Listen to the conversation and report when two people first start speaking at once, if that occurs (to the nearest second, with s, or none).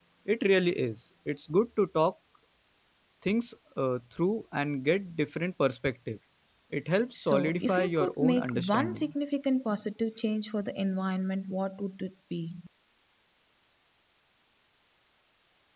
7 s